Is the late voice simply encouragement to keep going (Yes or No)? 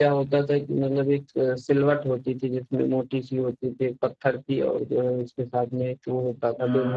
Yes